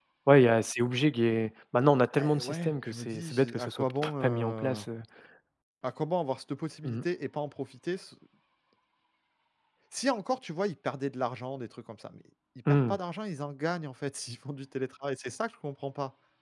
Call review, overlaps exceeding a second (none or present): present